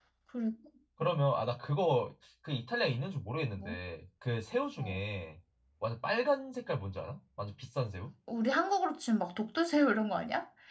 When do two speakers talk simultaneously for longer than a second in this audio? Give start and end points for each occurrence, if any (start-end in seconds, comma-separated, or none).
none